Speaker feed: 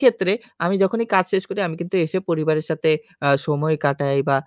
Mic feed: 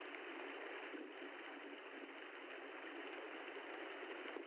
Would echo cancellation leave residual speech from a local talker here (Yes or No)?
No